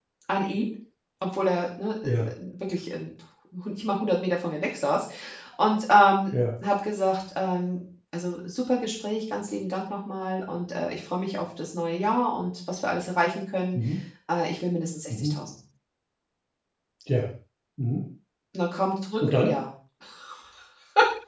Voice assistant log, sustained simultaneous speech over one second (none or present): none